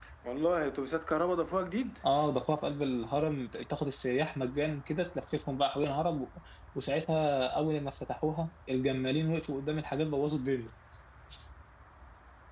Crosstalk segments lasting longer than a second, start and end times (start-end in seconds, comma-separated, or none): none